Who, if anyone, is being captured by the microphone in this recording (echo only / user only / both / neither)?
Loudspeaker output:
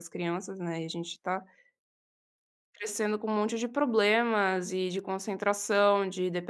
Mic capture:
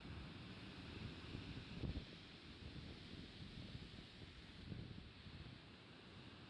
neither